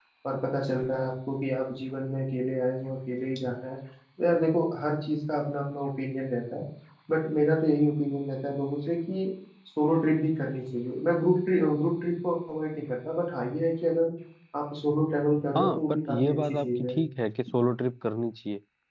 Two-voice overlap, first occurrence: 15.6 s

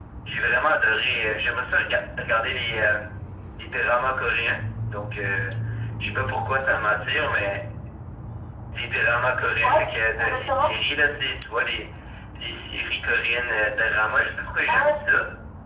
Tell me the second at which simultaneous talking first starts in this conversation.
9.4 s

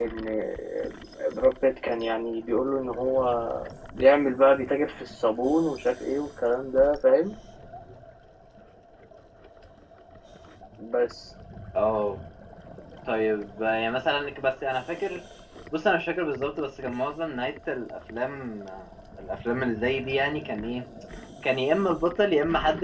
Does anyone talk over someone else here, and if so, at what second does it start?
none

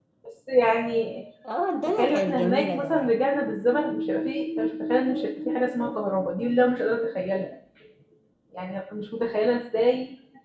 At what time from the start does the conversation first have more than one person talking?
1.9 s

